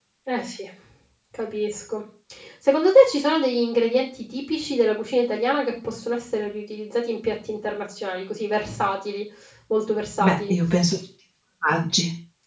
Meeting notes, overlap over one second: none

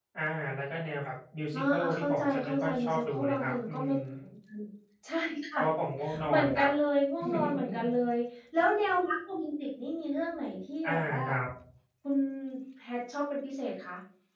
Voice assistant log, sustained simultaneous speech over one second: present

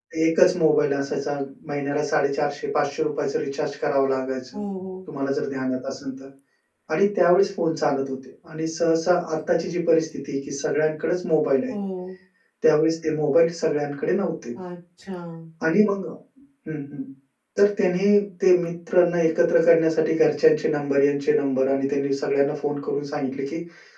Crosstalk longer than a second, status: none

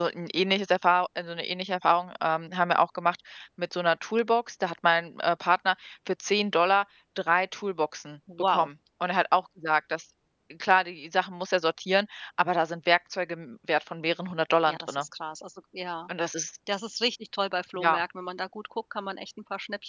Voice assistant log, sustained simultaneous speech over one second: none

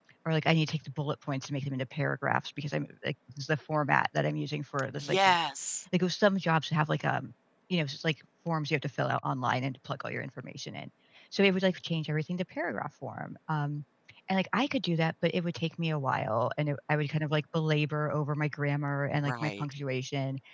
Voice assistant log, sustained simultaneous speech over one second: none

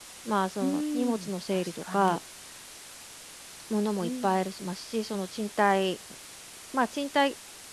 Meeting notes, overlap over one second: present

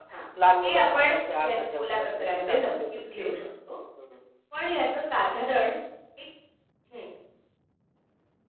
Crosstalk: present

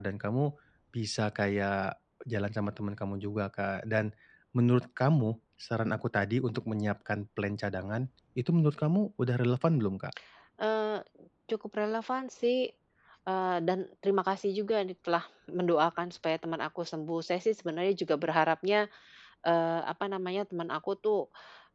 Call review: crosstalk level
none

